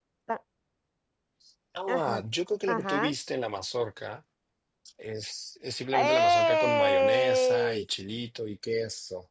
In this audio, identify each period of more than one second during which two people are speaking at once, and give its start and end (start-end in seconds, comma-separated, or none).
5.9-7.8